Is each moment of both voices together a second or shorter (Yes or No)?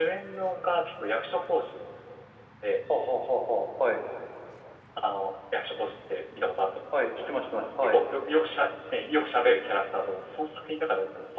Yes